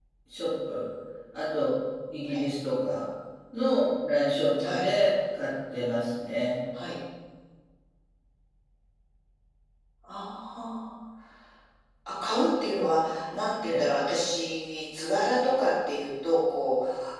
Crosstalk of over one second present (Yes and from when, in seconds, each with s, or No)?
No